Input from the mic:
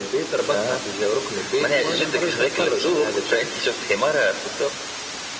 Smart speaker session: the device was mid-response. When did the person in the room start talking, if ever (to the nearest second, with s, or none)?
none